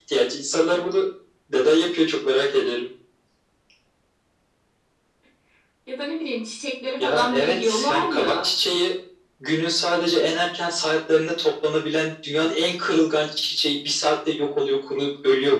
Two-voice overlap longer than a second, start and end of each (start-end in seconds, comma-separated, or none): 7.0-8.5